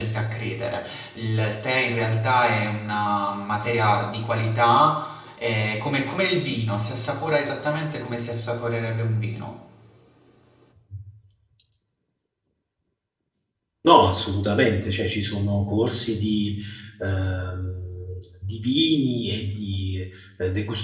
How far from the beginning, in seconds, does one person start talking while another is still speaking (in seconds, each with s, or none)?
none